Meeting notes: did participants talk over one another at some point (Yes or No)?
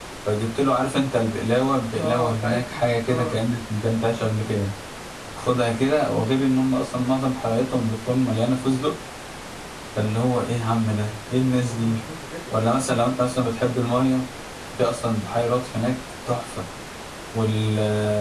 Yes